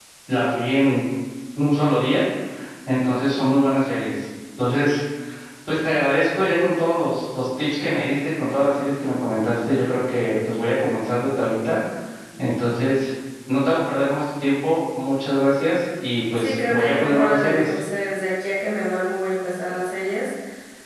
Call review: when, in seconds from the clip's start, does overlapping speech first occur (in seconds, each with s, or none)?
16.4 s